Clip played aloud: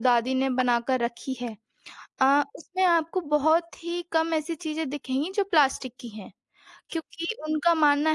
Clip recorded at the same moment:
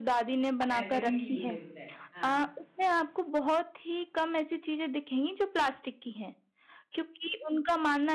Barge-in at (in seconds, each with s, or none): 0.7 s